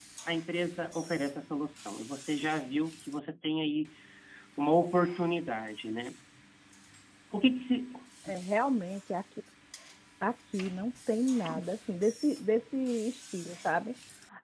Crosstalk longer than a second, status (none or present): none